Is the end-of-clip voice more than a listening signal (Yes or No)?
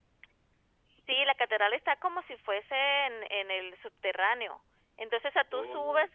No